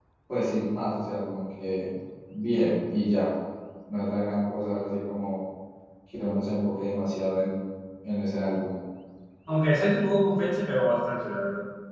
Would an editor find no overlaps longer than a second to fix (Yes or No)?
Yes